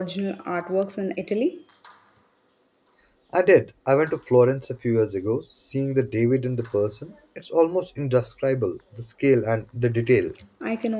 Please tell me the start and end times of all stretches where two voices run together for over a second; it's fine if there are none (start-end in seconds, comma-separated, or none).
none